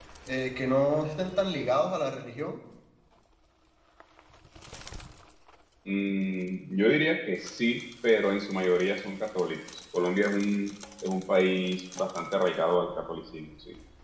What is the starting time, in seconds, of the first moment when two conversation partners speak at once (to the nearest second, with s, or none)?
none